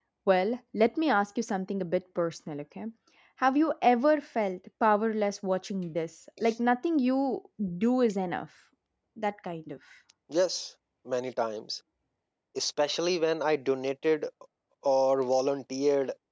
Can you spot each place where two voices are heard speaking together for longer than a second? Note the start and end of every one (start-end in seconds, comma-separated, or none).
none